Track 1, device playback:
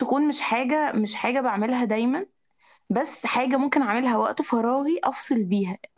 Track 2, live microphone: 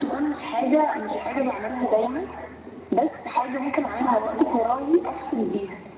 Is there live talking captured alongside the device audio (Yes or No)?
No